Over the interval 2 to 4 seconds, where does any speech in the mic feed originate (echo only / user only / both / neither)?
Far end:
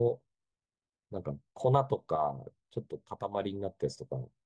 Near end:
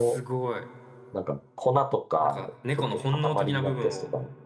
both